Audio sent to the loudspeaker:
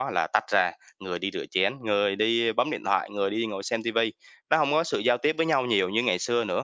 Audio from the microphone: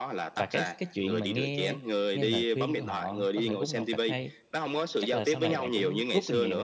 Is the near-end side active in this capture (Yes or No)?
Yes